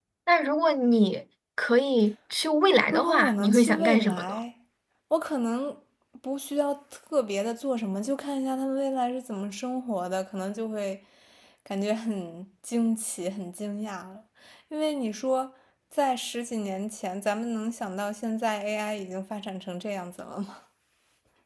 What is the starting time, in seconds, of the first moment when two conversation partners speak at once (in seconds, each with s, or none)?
2.9 s